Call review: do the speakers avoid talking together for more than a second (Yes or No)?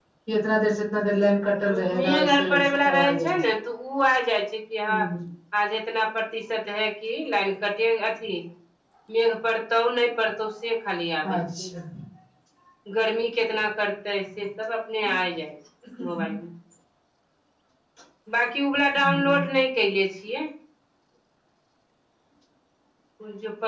No